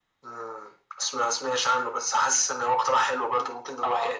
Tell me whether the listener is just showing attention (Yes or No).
No